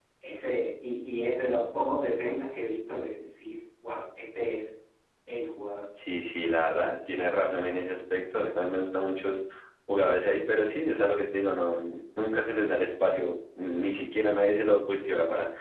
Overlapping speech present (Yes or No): No